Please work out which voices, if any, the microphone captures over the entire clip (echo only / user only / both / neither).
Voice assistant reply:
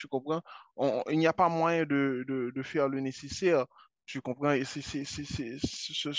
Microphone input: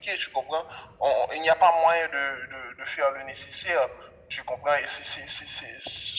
echo only